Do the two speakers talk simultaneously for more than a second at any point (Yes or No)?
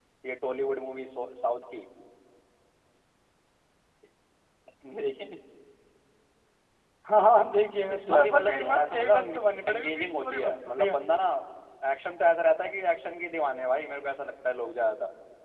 Yes